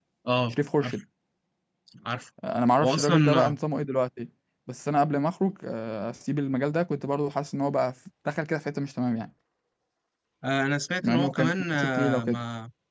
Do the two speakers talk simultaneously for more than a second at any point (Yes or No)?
Yes